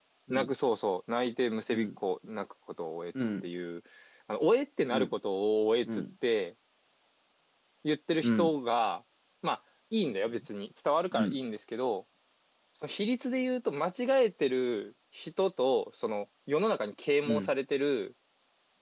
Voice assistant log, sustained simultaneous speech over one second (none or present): none